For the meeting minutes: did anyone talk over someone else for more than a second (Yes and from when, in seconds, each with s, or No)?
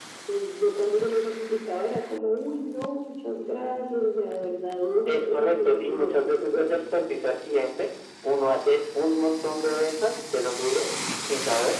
Yes, from 5.1 s